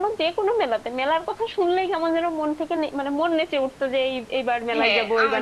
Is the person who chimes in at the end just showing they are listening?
No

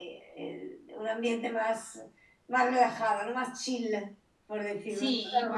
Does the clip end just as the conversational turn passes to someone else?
Yes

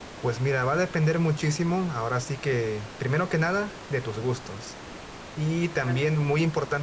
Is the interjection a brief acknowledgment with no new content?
Yes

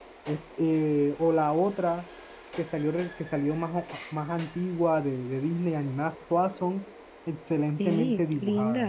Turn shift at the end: Yes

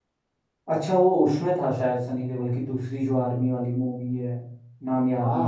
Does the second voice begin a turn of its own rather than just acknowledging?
Yes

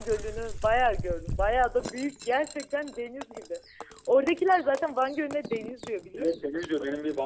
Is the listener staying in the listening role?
No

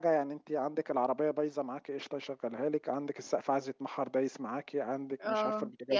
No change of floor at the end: No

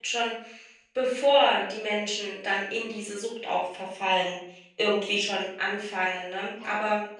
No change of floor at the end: No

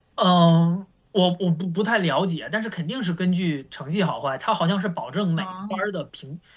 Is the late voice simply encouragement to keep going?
Yes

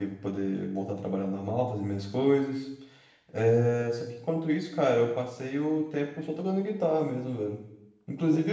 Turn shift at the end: No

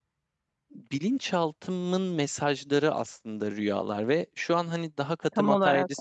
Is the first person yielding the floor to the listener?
No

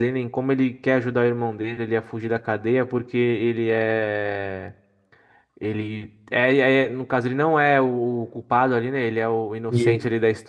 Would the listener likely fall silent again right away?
Yes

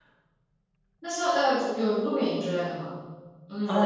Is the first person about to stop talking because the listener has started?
Yes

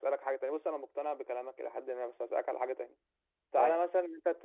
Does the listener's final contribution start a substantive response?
No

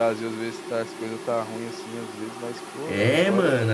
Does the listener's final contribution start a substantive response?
Yes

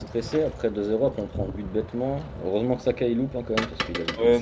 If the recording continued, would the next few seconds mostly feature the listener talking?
Yes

